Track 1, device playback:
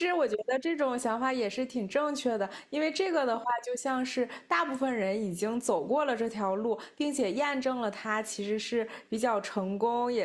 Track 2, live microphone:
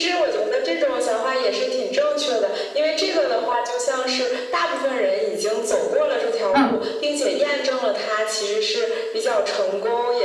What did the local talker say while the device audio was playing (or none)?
嗯